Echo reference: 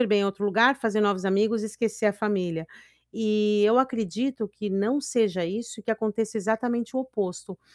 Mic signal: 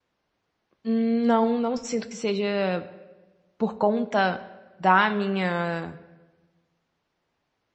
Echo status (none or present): none